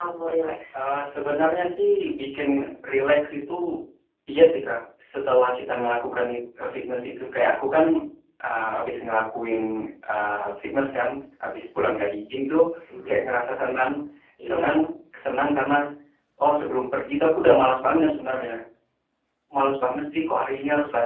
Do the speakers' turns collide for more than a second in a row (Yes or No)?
No